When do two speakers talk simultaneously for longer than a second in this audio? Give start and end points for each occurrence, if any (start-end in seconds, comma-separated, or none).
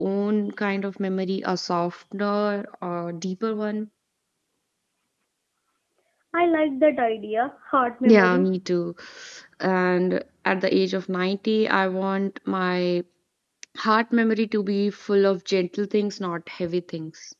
none